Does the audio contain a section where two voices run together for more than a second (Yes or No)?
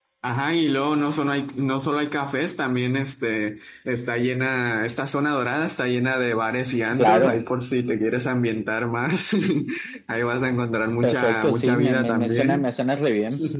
Yes